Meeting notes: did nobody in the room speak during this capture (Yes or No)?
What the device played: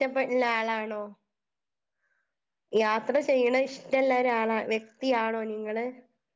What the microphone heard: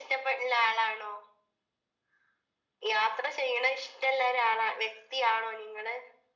Yes